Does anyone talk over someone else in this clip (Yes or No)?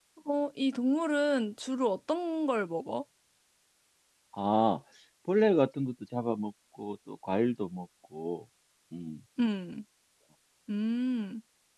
No